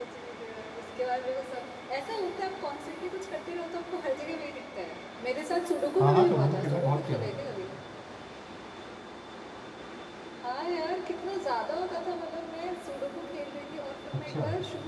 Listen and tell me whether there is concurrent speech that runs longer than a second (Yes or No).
Yes